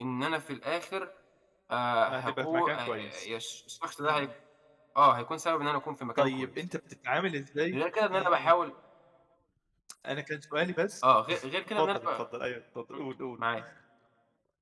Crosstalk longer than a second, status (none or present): present